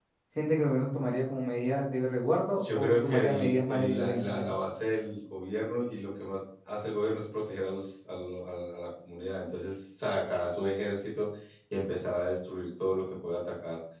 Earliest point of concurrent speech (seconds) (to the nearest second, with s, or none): 3 s